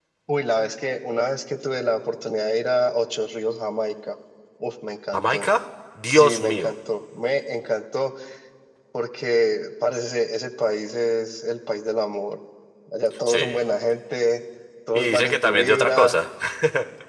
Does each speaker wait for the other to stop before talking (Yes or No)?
No